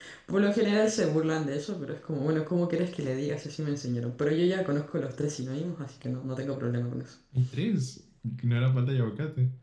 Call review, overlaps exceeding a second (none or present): none